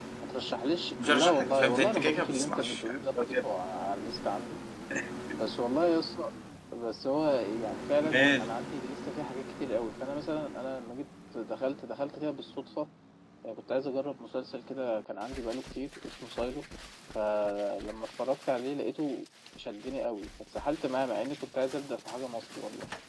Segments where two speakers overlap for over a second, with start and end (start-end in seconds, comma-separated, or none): 1.1-2.8